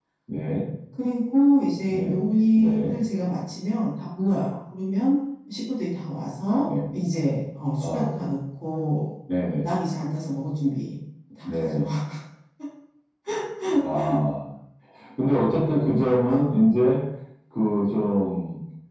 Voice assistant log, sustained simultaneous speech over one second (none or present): none